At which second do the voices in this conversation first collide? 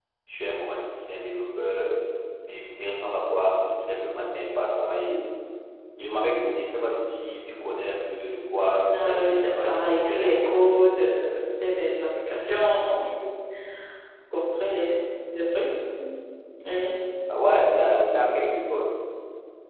8.9 s

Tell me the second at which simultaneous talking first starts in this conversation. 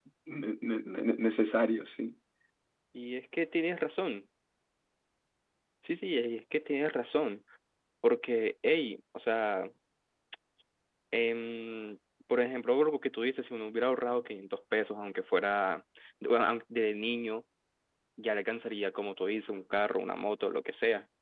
none

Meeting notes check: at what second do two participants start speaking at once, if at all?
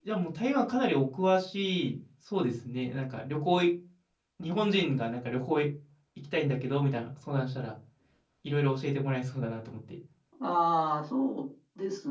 none

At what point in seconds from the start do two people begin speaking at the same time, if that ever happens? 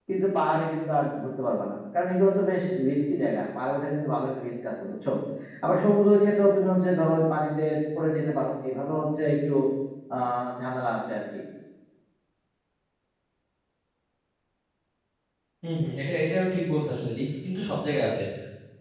none

